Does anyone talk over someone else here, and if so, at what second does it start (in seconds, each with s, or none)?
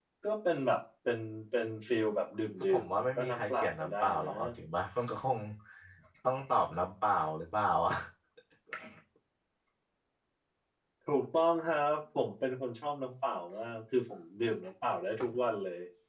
2.6 s